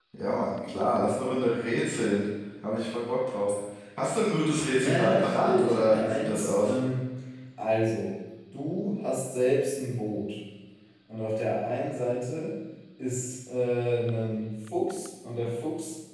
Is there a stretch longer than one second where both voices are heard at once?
Yes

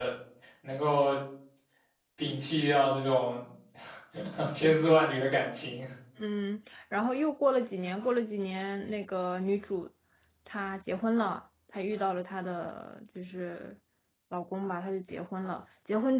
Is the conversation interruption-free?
Yes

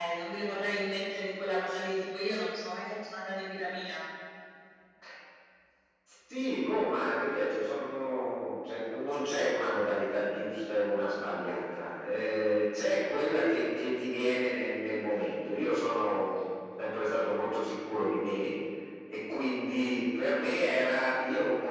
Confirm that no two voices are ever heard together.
Yes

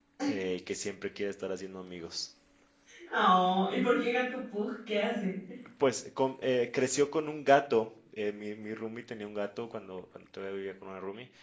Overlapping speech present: No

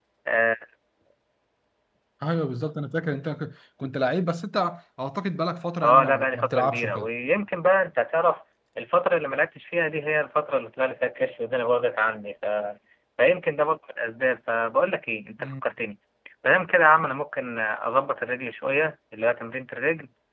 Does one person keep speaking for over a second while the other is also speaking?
Yes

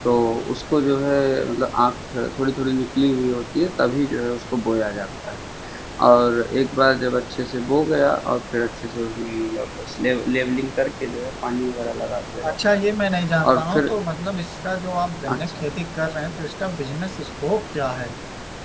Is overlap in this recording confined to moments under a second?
Yes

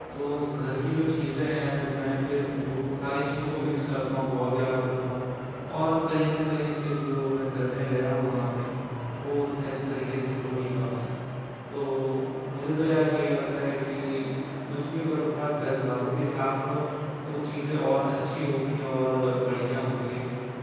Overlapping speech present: No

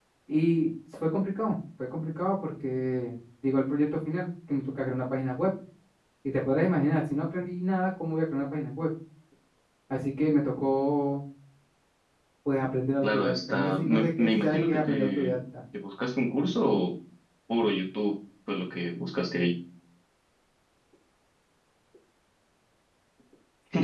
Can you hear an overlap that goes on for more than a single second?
Yes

